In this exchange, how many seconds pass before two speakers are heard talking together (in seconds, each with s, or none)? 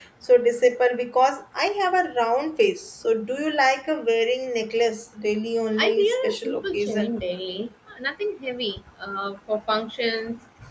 5.8 s